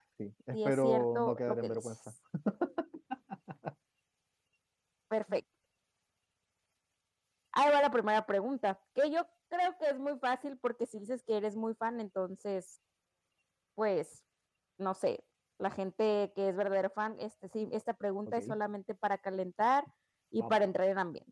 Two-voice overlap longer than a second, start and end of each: 0.5-1.9

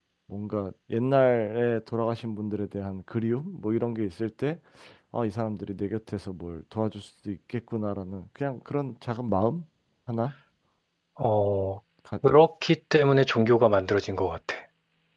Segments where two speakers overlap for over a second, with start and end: none

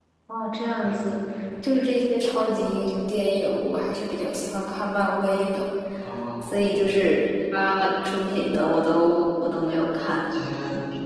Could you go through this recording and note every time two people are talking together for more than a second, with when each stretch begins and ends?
none

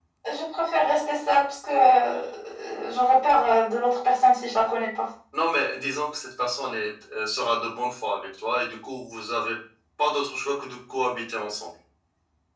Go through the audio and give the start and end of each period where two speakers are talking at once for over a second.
none

